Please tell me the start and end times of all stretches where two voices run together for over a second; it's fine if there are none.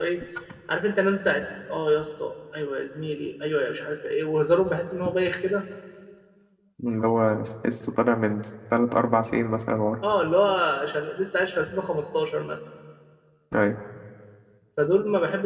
none

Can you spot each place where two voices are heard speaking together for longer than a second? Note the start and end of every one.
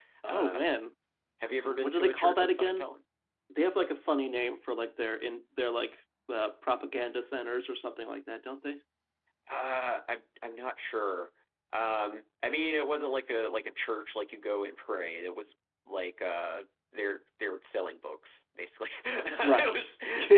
1.6-2.9

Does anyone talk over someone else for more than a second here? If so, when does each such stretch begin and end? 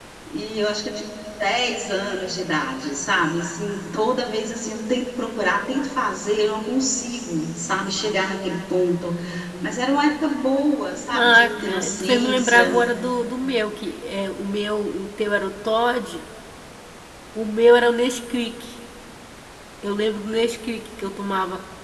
11.1-12.8

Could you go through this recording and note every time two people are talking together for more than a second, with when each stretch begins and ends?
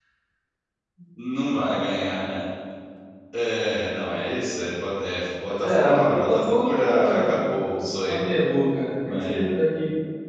5.6-7.5

